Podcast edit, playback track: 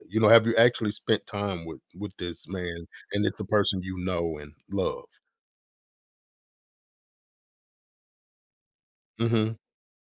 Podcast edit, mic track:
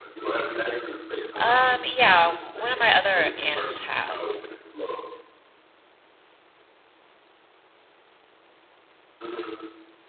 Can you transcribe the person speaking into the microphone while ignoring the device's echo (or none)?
Um, yeah, w- one of my other aunts has.